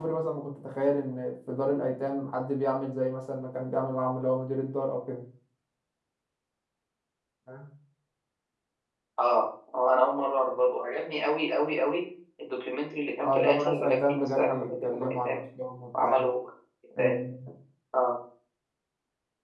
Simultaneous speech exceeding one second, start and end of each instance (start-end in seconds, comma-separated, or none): 13.2-15.4